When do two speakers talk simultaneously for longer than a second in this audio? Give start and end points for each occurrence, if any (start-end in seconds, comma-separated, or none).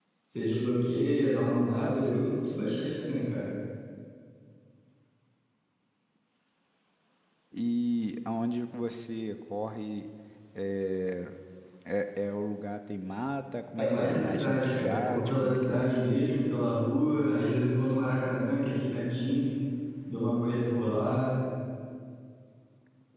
1.6-2.9, 13.8-15.9